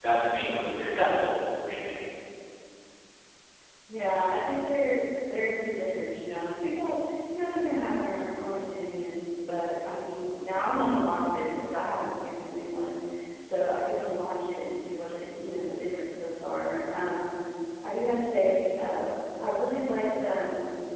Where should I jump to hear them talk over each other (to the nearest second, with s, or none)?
none